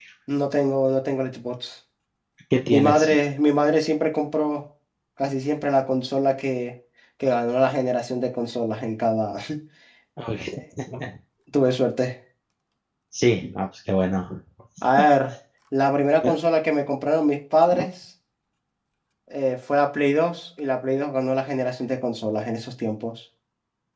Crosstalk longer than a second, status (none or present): none